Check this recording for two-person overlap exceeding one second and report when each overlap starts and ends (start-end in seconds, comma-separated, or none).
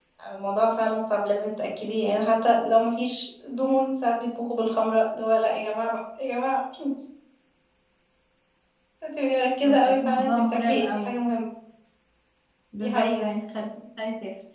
9.6-11.2